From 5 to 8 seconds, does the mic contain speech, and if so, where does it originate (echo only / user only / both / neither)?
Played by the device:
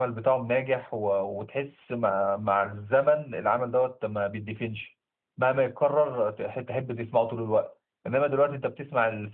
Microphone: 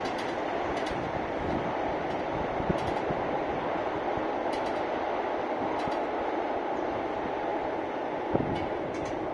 neither